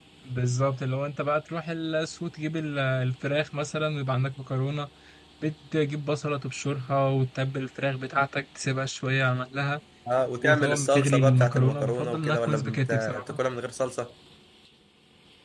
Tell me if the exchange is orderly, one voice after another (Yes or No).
No